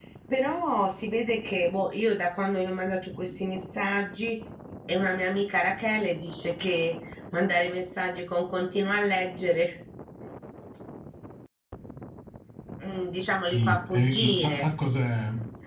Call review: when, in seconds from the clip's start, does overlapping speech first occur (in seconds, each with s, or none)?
13.4 s